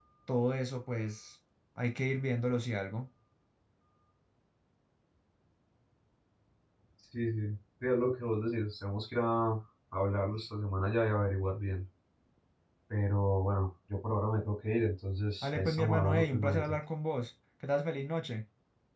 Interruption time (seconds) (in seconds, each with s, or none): 15.4 s